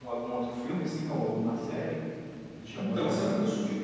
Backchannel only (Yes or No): No